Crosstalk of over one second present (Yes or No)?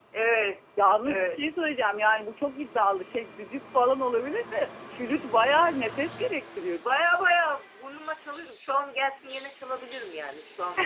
No